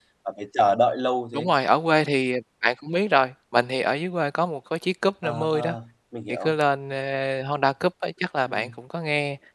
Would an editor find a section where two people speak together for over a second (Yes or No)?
No